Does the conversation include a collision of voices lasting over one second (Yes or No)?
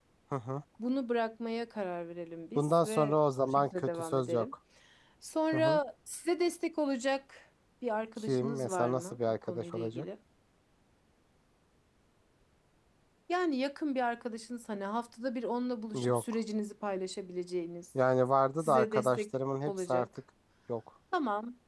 Yes